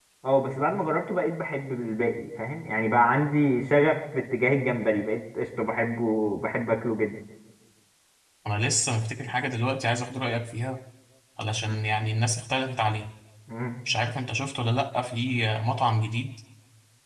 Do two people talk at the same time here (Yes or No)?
No